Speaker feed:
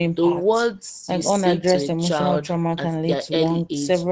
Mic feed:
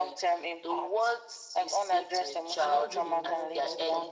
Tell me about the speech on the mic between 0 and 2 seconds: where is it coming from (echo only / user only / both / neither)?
echo only